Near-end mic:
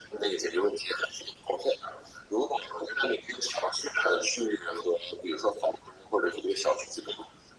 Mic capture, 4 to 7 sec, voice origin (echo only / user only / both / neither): echo only